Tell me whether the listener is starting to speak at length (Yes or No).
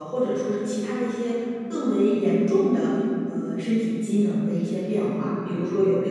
No